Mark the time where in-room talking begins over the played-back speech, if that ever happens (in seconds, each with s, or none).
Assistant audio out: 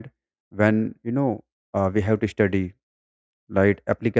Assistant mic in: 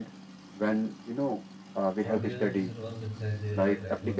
2.0 s